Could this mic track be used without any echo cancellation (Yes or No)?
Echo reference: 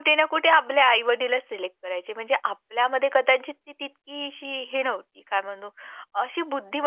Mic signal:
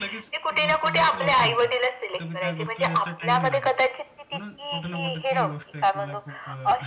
No